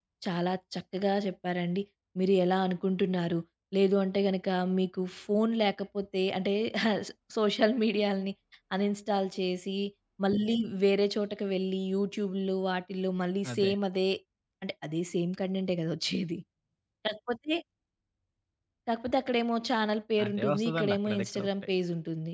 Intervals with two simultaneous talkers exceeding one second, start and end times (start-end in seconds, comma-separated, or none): 20.2-21.5